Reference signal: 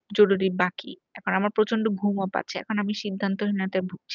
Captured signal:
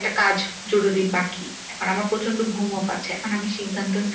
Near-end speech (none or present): none